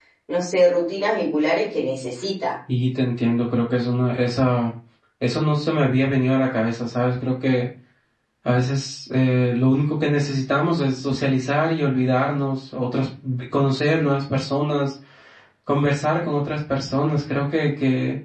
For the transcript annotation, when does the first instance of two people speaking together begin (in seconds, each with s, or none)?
none